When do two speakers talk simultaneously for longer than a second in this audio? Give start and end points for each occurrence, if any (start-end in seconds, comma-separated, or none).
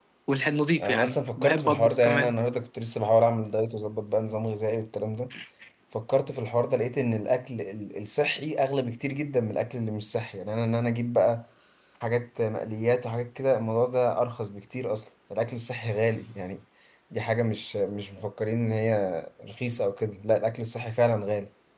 0.8-2.3